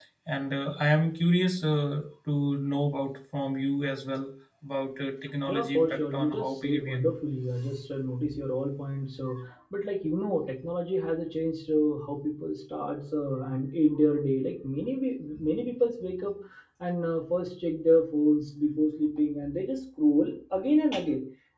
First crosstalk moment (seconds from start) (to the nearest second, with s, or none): 5 s